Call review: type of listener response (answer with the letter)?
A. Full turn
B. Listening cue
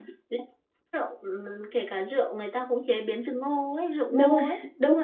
A